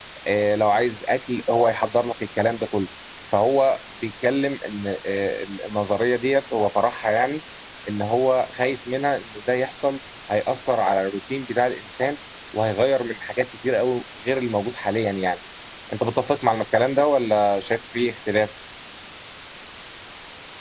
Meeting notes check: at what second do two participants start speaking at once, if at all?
none

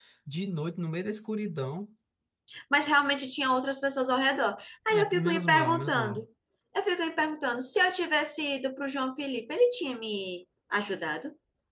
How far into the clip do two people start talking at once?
4.9 s

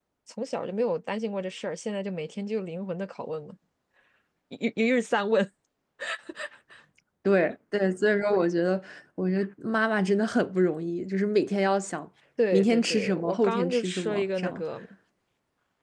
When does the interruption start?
12.5 s

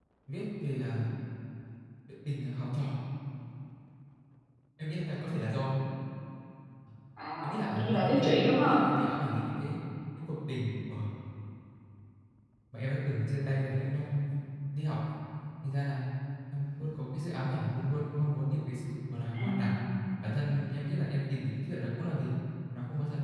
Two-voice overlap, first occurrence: 7.4 s

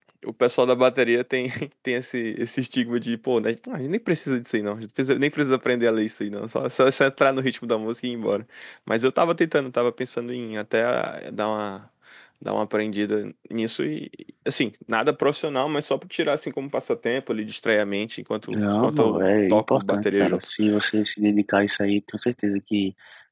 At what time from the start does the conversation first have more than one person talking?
18.5 s

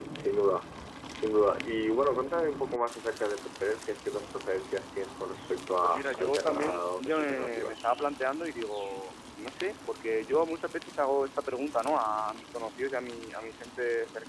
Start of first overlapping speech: 5.8 s

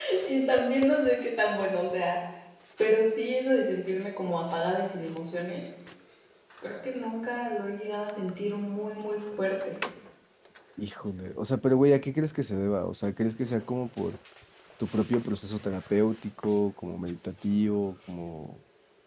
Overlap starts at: none

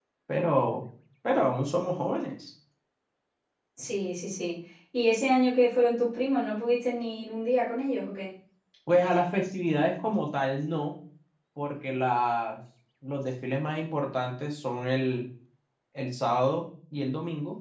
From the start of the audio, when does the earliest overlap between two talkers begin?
none

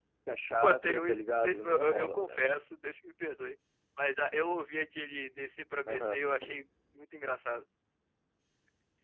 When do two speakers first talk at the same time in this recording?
0.6 s

